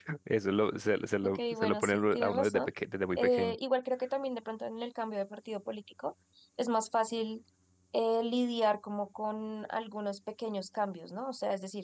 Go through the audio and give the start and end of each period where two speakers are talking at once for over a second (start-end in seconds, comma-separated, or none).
1.2-2.7